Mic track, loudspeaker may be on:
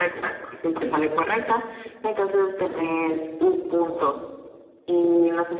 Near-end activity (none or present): none